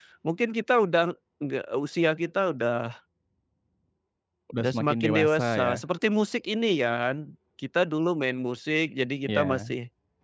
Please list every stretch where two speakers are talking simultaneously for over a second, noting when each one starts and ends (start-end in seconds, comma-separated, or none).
4.6-5.8